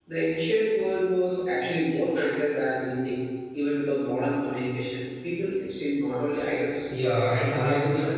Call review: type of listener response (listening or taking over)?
taking over